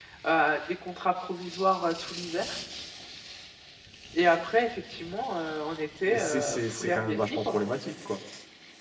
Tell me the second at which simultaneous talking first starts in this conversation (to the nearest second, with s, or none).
6 s